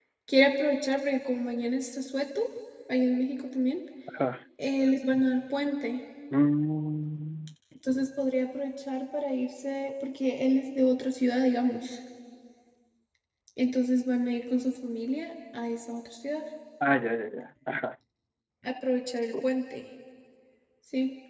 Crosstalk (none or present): none